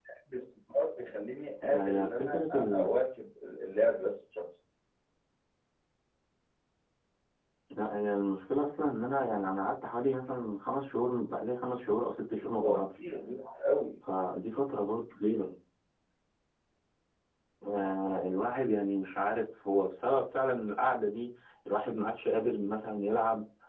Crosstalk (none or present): present